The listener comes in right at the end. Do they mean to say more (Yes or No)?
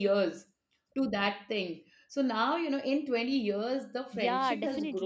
Yes